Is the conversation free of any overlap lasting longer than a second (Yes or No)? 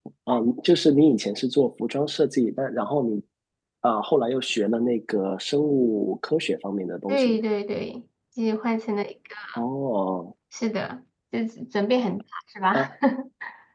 Yes